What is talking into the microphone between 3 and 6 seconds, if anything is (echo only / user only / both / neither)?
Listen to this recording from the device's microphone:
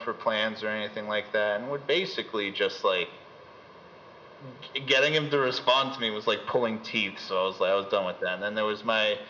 echo only